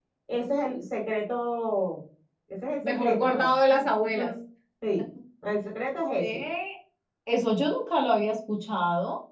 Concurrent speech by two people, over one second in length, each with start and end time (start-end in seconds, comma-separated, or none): 2.8-4.3